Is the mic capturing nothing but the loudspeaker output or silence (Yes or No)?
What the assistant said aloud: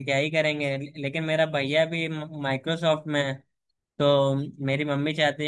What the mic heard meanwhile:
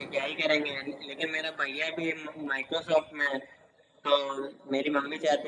Yes